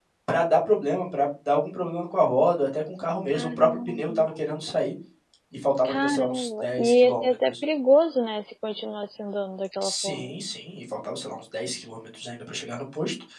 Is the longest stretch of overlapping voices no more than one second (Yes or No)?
No